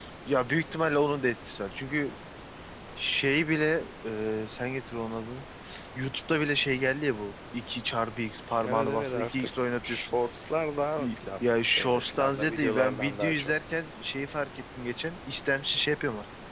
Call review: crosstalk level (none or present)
present